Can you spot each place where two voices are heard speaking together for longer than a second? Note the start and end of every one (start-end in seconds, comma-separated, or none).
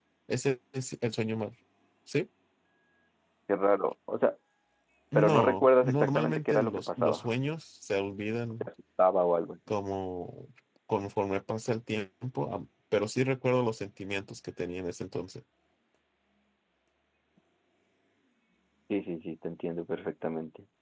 5.2-7.3